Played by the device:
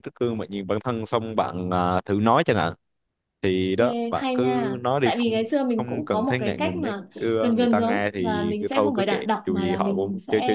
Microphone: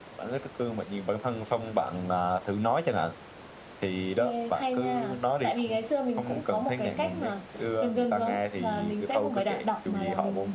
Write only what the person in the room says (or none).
none